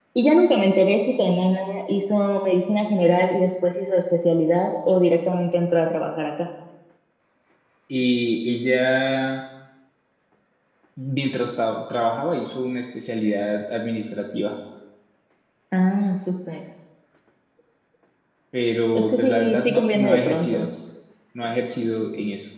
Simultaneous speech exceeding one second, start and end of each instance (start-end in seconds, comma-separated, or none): 18.9-20.7